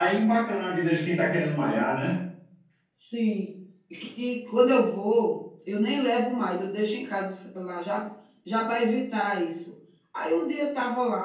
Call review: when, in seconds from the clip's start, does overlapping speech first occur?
none

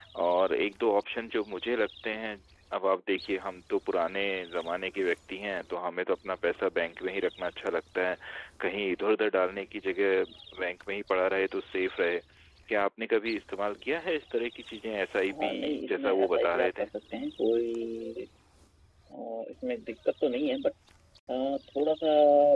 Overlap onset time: 15.3 s

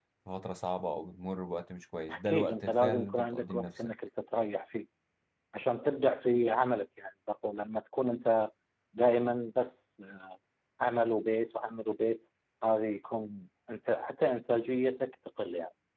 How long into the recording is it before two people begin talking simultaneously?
2.1 s

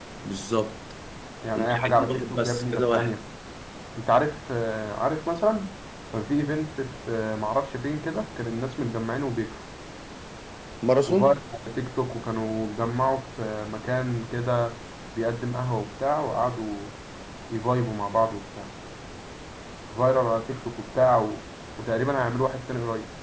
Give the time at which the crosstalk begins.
1.6 s

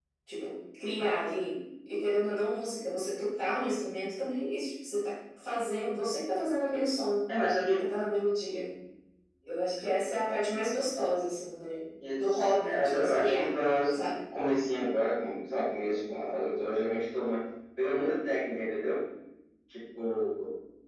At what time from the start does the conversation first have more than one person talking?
12.0 s

